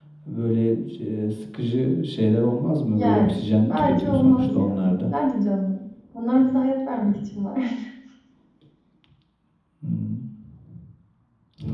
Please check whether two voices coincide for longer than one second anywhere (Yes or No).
Yes